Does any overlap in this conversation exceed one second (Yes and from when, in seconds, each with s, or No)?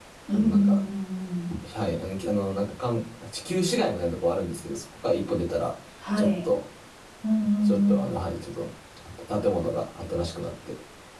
No